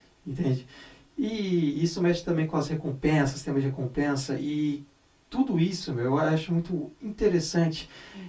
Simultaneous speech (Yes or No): No